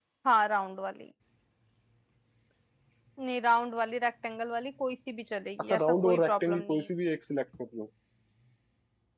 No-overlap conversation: No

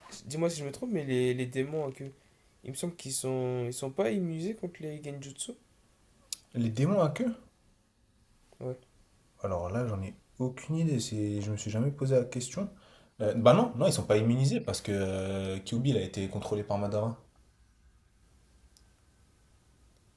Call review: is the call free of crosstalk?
Yes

